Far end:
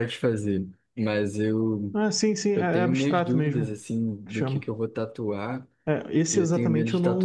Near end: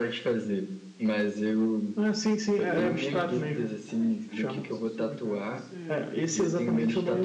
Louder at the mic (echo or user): echo